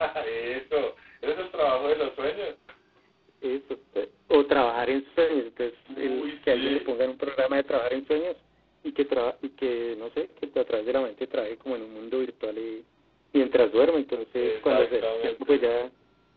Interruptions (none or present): present